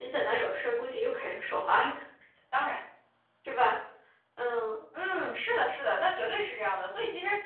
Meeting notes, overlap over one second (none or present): none